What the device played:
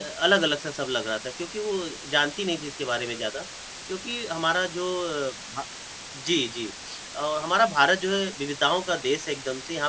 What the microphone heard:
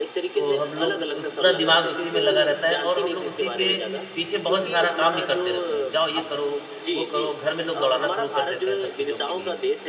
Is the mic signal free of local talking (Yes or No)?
No